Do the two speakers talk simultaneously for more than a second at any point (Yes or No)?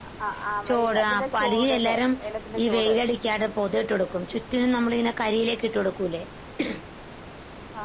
Yes